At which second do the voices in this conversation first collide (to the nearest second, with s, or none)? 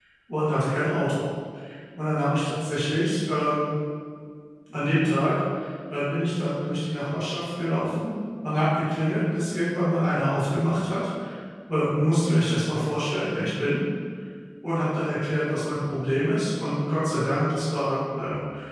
none